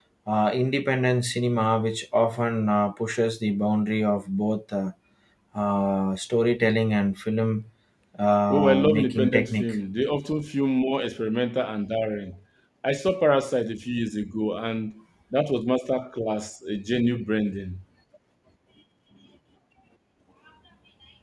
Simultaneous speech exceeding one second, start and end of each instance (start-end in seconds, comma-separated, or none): 8.5-9.7